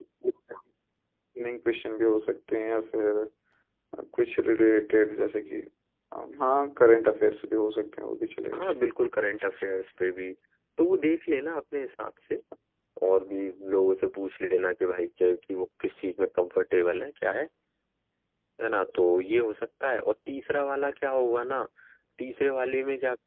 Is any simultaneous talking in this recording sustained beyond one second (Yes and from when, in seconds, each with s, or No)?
No